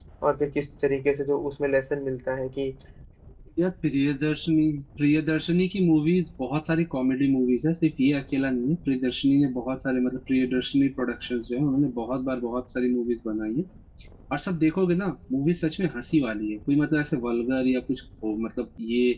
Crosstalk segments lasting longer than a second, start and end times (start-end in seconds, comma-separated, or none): none